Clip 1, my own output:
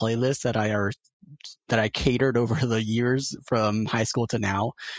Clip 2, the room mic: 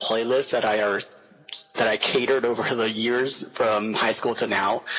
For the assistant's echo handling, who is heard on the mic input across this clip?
echo only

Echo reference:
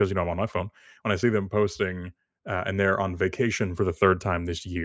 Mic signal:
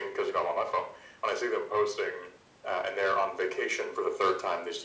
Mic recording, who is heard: echo only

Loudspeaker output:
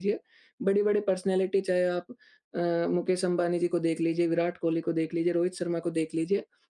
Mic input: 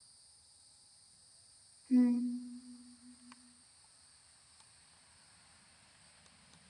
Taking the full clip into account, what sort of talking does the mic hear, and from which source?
user only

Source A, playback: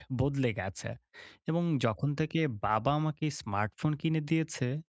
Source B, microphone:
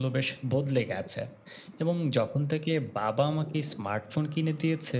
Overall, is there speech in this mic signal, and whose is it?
echo only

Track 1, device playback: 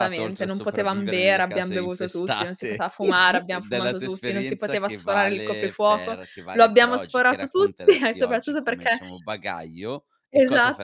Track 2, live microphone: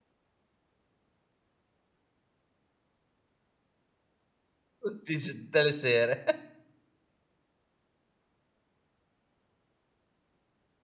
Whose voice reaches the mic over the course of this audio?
user only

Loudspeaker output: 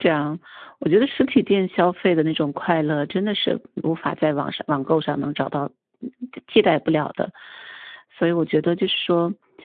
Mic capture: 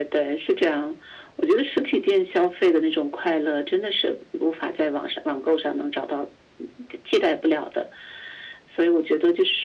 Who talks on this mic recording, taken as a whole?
echo only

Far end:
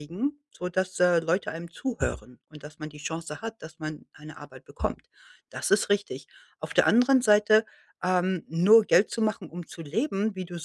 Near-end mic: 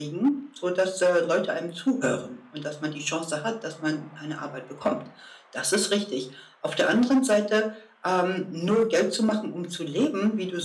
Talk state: echo only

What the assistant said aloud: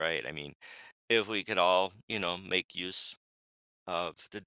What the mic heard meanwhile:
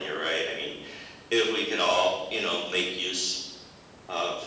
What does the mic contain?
echo only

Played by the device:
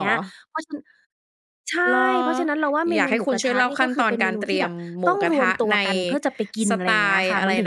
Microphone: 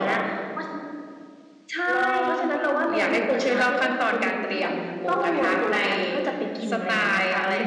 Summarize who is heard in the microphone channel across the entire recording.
echo only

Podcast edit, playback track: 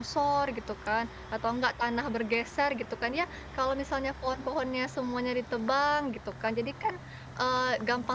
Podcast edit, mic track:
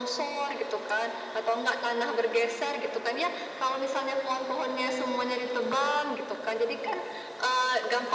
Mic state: echo only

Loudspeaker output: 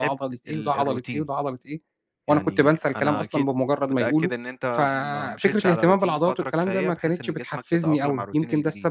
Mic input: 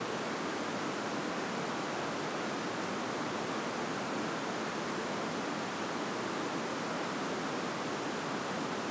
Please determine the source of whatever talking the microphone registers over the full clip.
neither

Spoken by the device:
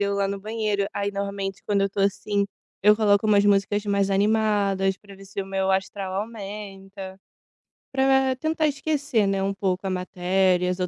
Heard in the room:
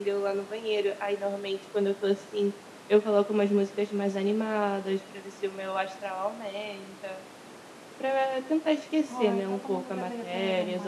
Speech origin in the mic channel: both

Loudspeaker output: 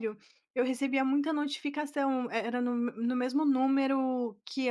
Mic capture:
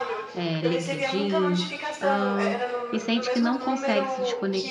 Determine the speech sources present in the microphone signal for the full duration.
both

